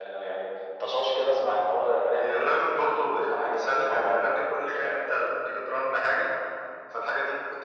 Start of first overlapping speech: 2.1 s

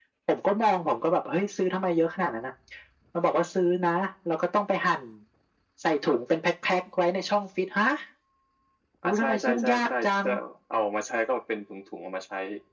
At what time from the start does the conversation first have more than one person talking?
9.0 s

